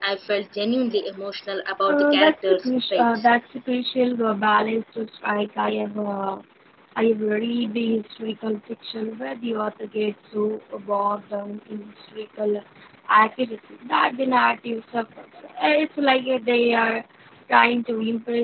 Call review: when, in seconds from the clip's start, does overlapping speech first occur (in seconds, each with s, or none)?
1.8 s